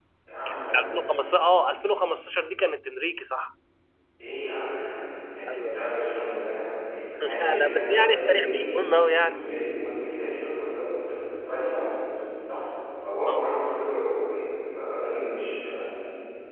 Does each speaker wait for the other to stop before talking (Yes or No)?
No